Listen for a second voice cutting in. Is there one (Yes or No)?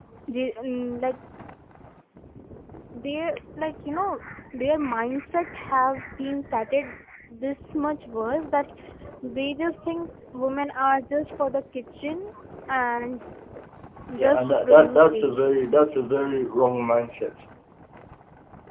Yes